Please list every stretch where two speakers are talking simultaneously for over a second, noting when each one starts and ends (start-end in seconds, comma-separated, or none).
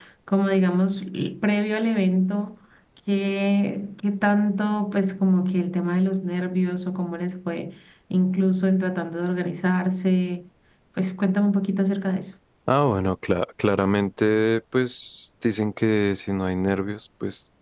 none